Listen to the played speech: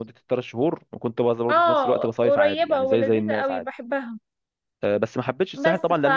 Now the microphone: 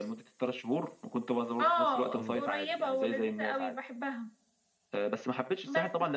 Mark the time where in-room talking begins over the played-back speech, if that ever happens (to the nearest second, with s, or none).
2 s